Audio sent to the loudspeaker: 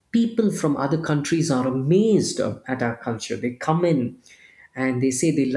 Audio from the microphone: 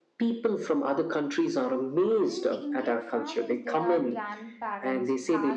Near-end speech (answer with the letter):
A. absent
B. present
B